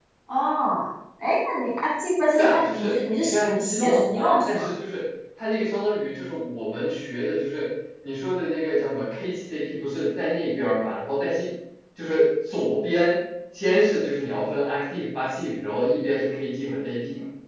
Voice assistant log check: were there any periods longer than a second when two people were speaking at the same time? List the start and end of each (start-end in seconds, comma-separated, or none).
2.3-4.7